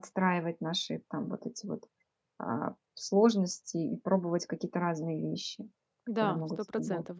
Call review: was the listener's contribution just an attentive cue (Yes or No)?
No